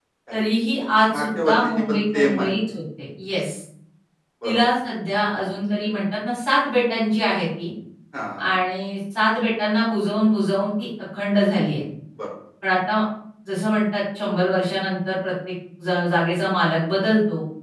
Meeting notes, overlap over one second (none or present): present